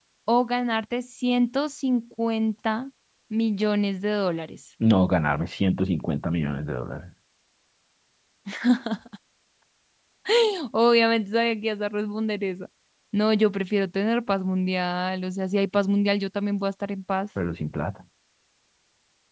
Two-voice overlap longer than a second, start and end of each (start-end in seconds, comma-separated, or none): none